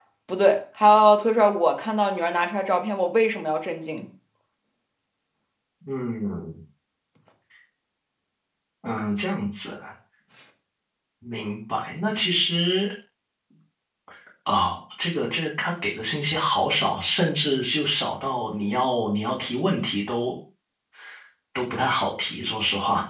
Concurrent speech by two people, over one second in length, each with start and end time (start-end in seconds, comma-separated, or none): none